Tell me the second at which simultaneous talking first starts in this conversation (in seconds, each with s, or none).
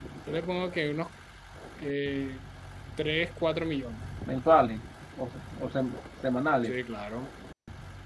none